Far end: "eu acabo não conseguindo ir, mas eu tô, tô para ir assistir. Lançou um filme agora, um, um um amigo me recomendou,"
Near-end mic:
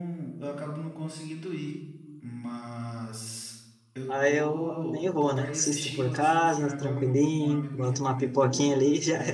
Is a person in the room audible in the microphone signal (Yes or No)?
Yes